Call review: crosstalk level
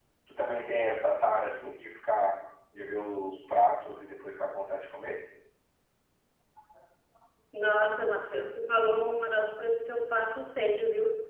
none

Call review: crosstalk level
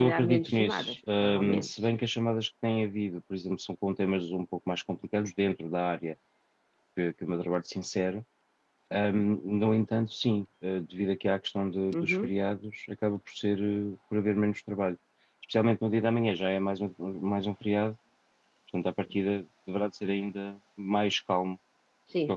present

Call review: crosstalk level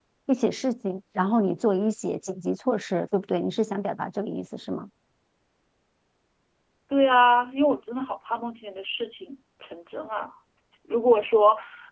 none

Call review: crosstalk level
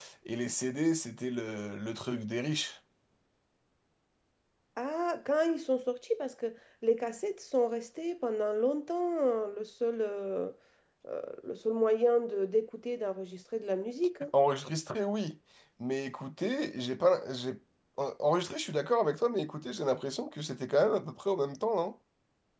none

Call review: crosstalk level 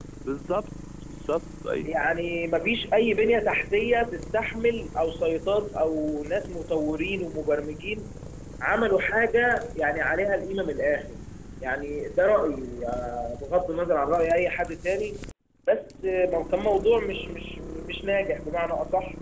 none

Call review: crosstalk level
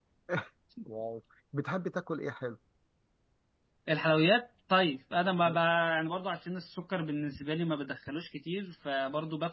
none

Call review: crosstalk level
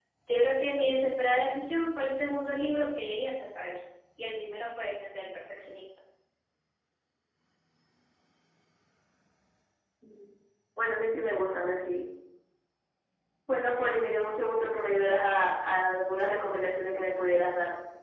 none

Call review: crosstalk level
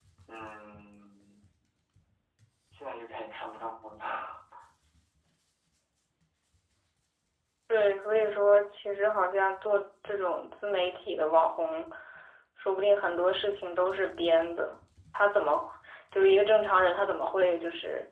none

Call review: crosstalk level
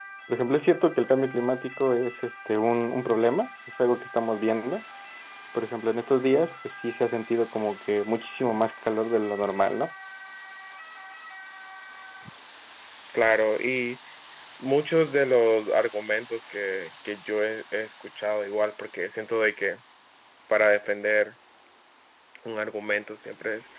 none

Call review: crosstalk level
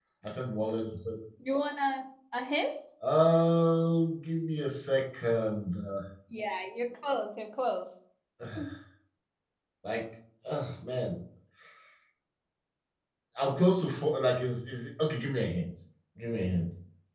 none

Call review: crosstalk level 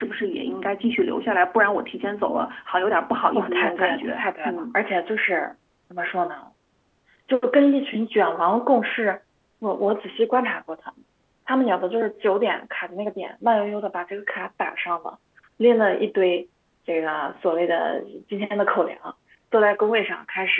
present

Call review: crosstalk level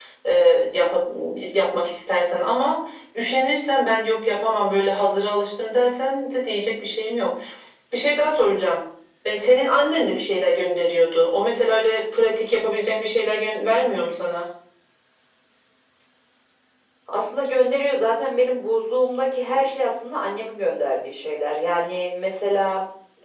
none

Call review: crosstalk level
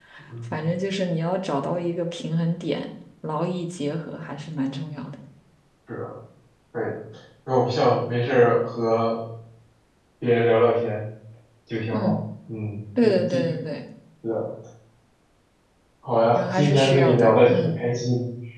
present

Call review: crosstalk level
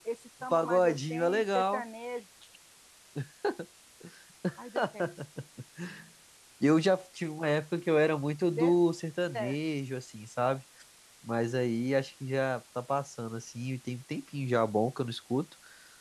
present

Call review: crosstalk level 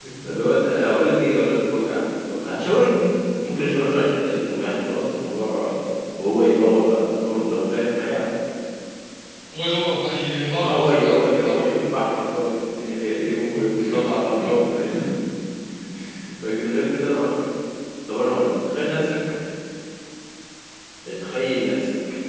present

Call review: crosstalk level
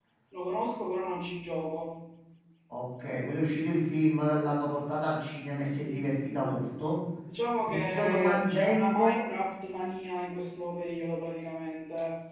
present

